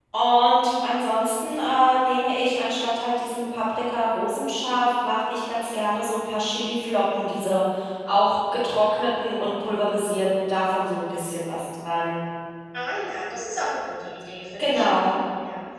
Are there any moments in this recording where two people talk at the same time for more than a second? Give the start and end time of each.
none

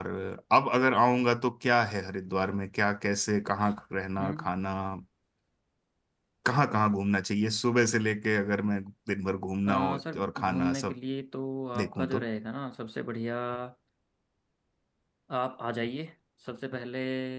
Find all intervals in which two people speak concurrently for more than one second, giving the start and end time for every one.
9.7-10.9

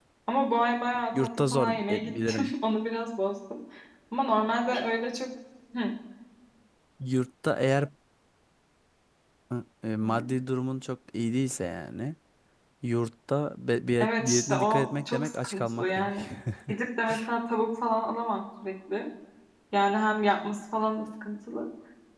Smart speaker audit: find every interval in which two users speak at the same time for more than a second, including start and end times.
1.1-2.5, 14.0-16.1

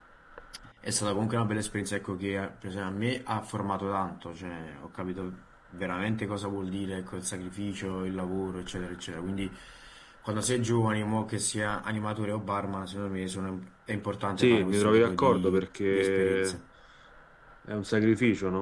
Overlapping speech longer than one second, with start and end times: 14.4-16.6

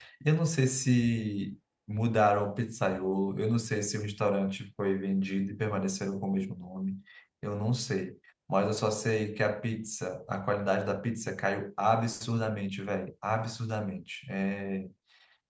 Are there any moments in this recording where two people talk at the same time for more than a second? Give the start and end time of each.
none

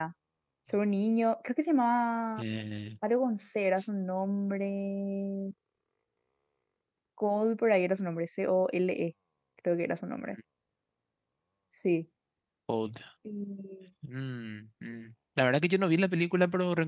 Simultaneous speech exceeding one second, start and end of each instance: none

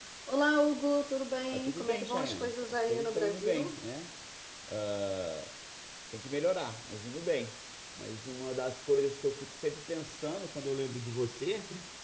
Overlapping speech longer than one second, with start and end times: 1.5-3.7

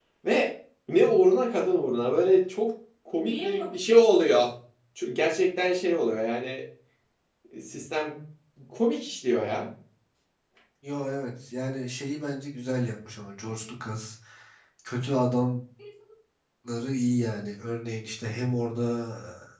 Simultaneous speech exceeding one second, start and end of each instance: none

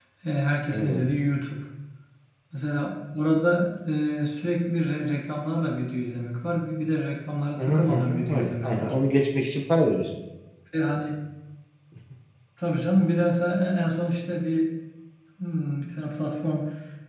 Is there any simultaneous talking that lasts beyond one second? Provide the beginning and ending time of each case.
7.6-8.9

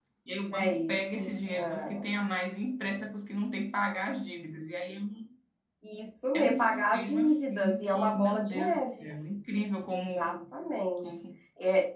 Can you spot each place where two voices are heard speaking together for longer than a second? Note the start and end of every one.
0.5-2.0, 6.3-9.1

